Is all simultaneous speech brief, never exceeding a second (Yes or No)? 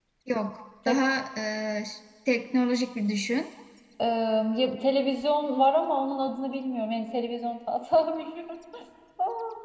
Yes